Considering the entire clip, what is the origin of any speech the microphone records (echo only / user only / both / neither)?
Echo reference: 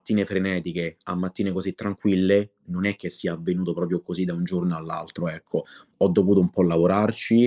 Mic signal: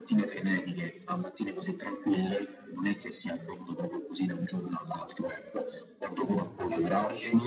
both